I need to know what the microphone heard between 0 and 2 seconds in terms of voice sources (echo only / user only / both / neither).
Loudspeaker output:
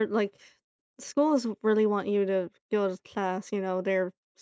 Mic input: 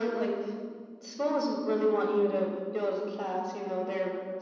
echo only